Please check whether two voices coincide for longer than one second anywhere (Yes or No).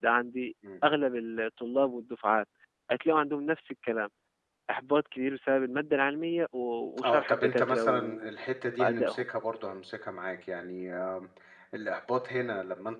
Yes